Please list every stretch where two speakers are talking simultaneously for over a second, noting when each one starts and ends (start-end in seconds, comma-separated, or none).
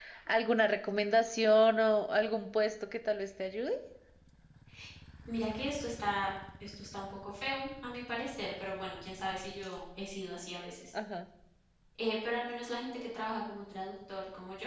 none